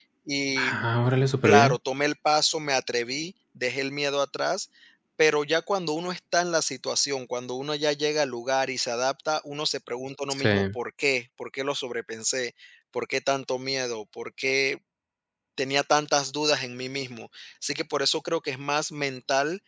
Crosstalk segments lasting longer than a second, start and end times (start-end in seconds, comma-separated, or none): none